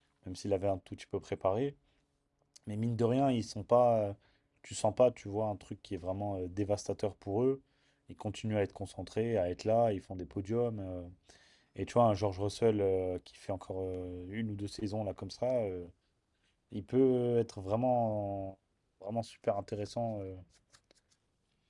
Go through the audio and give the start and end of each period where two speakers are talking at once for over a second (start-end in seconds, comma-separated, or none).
none